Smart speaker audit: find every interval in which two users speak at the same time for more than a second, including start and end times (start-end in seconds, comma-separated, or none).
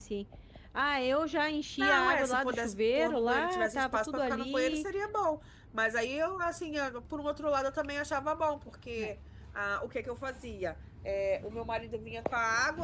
1.8-4.8